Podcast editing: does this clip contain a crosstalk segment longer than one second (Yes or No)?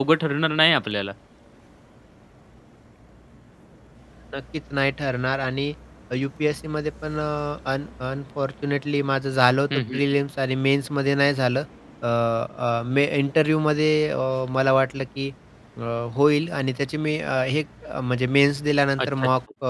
No